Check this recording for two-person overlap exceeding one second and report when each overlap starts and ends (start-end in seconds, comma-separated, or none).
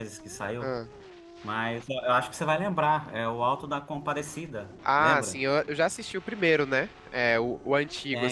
none